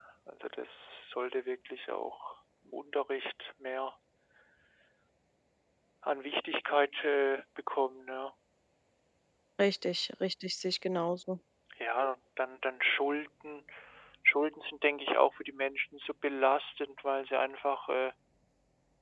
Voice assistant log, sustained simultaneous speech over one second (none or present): none